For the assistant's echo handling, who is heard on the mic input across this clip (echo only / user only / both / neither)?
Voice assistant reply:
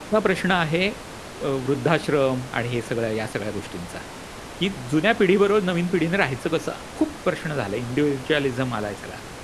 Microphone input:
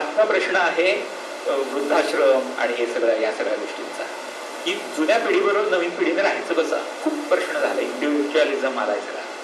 echo only